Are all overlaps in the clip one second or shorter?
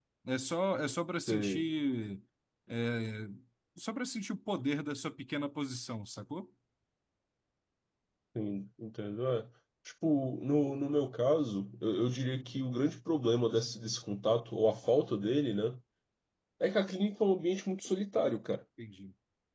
Yes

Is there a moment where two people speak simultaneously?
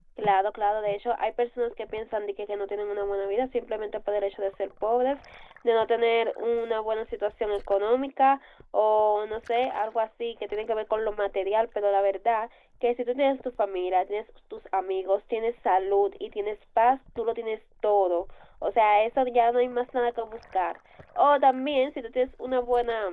No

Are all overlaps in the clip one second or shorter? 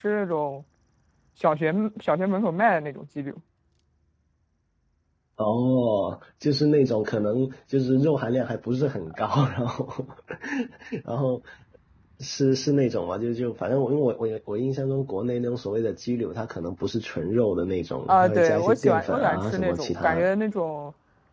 No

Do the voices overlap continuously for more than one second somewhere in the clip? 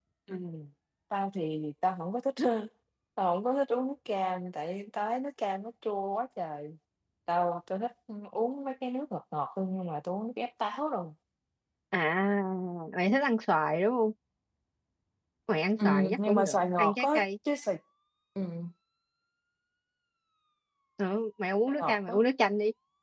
Yes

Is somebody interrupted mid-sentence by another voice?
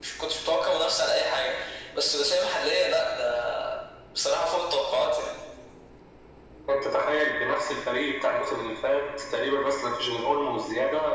No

